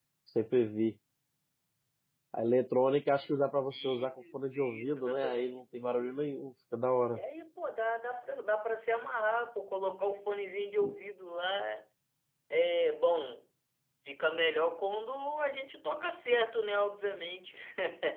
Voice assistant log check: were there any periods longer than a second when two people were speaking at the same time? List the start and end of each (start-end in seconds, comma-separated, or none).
3.7-5.6